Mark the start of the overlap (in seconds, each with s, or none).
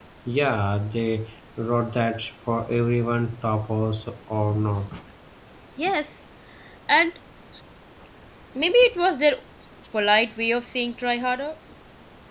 none